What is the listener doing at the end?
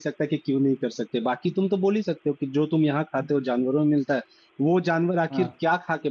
listening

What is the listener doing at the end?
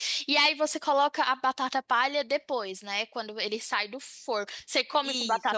taking over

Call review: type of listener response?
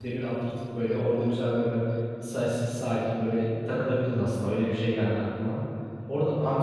listening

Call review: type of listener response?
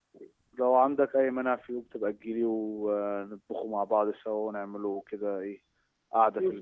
taking over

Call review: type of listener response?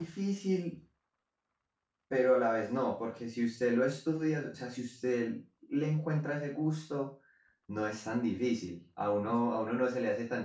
listening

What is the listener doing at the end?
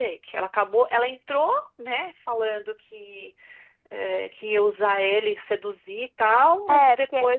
taking over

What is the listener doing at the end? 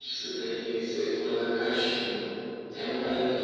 listening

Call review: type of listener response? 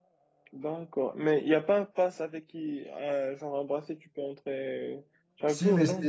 taking over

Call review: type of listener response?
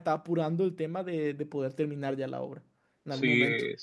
taking over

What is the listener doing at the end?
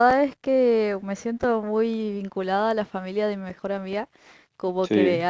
listening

